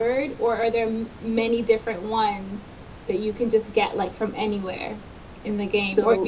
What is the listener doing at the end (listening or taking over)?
listening